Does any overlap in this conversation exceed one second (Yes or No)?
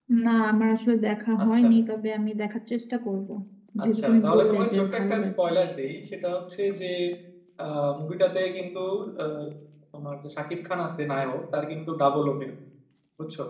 Yes